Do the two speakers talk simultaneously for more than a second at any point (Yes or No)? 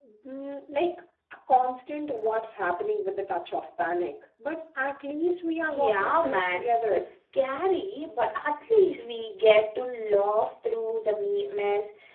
Yes